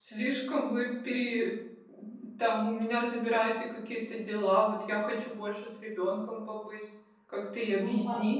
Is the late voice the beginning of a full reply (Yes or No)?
Yes